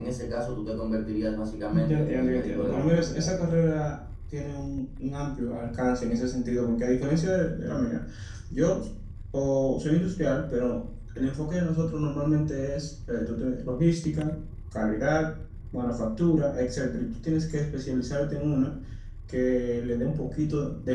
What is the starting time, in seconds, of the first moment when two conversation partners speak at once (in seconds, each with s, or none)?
1.7 s